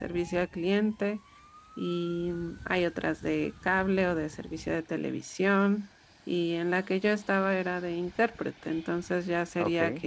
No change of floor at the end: Yes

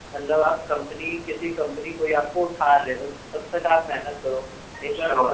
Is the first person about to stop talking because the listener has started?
No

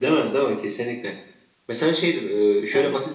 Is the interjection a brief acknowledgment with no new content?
Yes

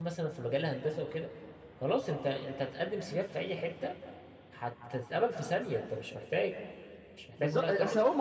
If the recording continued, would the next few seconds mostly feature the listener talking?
Yes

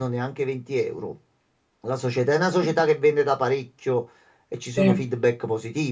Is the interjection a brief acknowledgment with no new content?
Yes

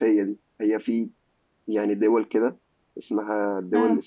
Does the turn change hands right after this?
No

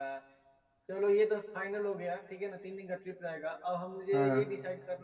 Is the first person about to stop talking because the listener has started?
No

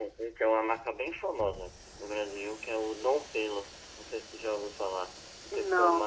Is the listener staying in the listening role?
Yes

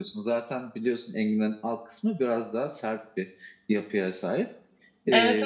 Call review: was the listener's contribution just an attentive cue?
No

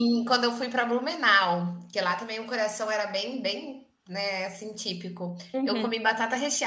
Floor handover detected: No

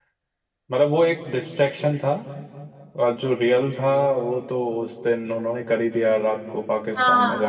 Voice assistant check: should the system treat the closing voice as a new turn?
Yes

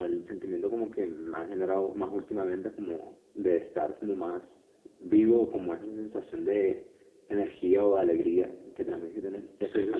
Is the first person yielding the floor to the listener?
Yes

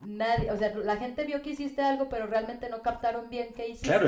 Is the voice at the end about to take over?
Yes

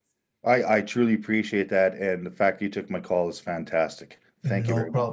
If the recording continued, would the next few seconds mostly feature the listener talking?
Yes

